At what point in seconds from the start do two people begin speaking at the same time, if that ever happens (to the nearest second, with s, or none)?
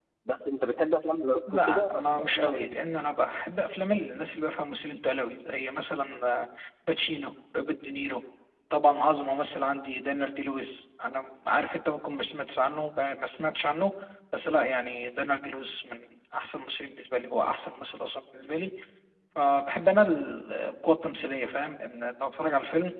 1 s